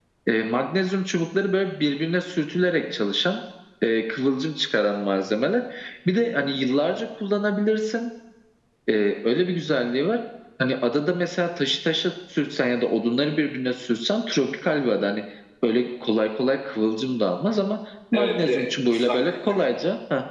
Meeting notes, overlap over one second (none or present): present